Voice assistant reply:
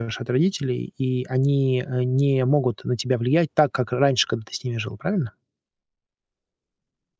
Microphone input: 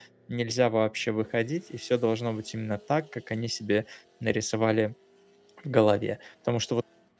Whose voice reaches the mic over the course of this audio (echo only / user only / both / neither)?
user only